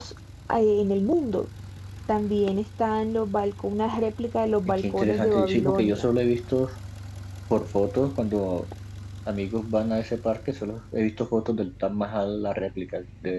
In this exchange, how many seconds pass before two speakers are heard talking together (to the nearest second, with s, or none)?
5 s